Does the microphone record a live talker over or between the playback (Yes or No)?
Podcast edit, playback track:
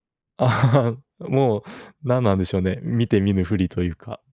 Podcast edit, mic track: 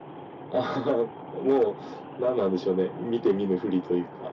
No